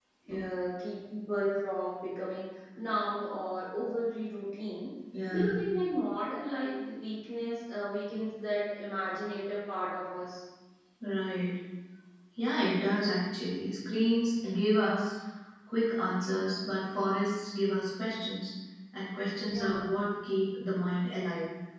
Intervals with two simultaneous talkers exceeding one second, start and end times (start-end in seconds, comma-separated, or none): none